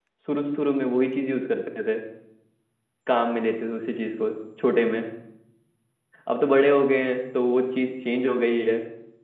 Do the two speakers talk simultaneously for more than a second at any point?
No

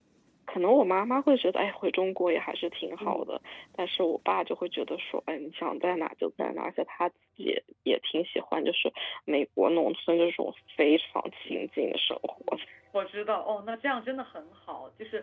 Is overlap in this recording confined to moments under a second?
Yes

